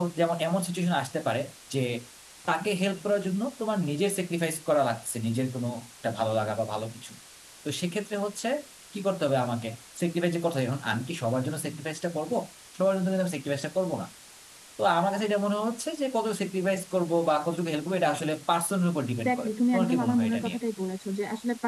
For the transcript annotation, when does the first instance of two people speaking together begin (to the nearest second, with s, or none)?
19 s